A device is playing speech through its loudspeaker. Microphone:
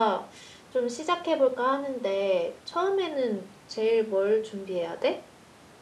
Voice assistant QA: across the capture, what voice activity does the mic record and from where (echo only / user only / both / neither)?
echo only